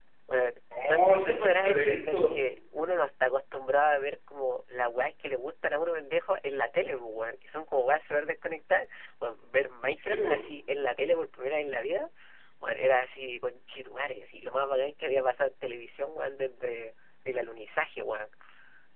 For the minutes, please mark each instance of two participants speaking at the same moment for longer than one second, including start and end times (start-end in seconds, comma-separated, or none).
0.9-2.4